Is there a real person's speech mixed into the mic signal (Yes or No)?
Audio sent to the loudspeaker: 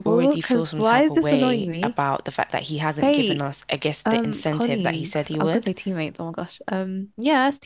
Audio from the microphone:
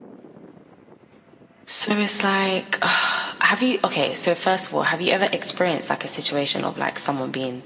Yes